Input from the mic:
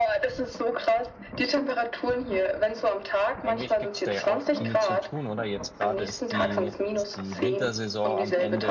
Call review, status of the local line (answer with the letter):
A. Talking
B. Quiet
A